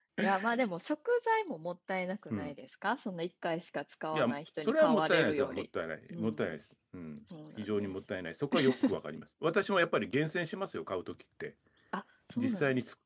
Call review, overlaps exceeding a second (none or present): present